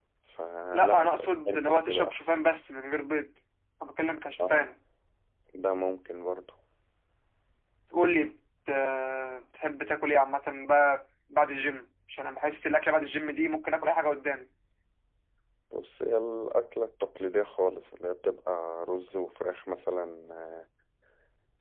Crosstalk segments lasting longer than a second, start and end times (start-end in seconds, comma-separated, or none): 0.7-2.4